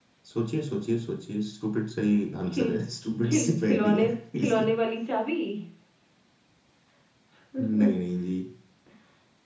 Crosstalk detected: Yes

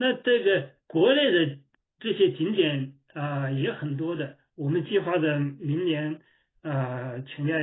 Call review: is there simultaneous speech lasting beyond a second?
No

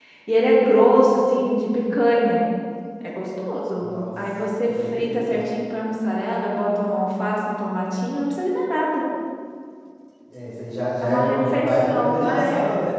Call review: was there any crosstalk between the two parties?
Yes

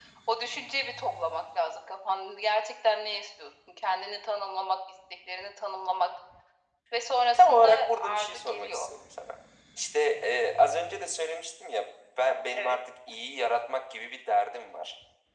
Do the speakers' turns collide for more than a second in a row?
Yes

